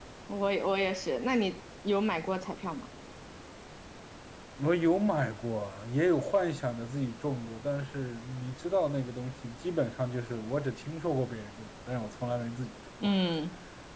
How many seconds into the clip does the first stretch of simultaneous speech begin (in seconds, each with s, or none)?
none